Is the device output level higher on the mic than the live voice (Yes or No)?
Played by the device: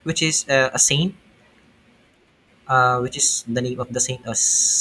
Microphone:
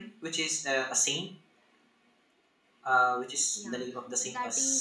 Yes